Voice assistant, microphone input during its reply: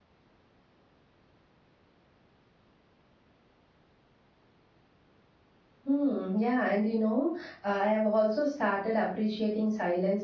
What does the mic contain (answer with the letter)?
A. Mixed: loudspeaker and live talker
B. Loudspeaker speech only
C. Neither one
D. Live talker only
D